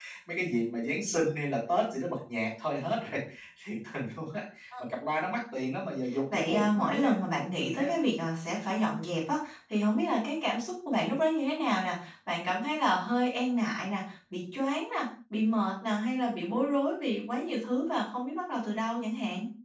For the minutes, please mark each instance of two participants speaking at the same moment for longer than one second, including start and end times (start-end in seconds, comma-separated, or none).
6.3-7.9